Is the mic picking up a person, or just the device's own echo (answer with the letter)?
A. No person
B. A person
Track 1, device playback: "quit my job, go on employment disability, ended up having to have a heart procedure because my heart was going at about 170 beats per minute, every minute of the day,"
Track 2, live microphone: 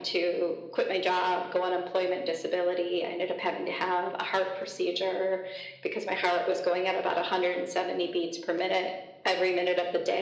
A